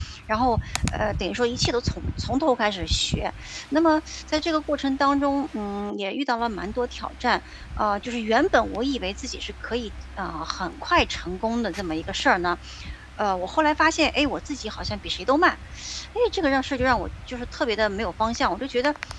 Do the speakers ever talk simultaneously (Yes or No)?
No